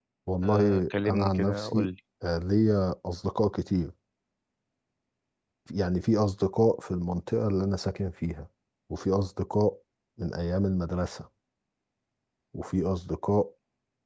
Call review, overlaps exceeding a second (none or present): present